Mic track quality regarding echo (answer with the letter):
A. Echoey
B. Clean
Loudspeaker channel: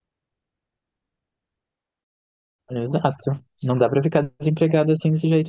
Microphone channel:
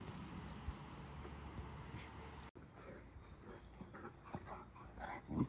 B